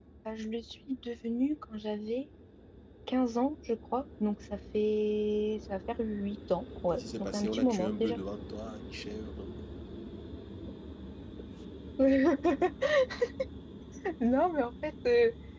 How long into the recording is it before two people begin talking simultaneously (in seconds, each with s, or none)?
6.9 s